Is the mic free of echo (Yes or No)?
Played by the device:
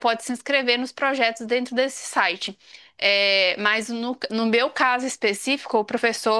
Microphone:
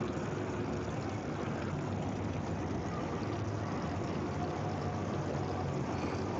Yes